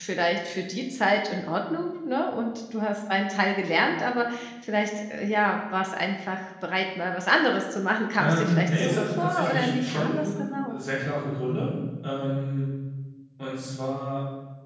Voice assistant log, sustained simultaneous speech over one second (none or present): present